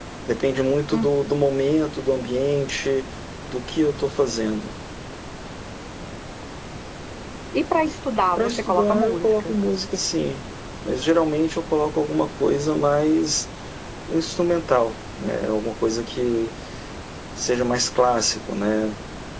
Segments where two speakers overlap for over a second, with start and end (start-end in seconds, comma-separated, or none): 8.4-9.6